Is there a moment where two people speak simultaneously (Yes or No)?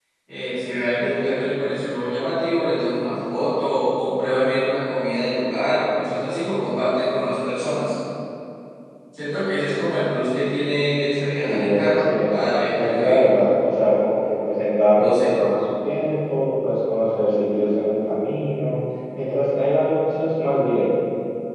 Yes